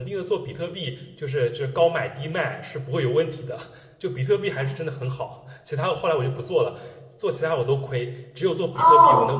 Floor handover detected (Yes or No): Yes